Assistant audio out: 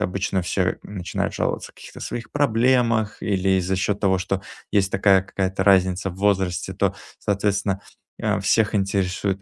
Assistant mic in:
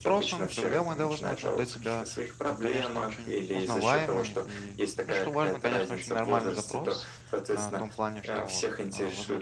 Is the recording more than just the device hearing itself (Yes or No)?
Yes